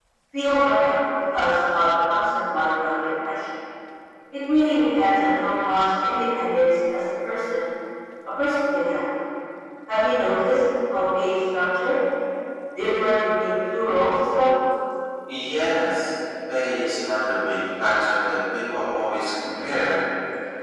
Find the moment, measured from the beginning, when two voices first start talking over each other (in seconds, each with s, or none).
none